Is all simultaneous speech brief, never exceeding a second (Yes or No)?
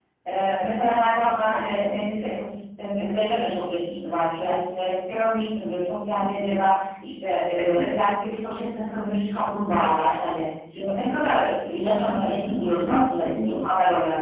No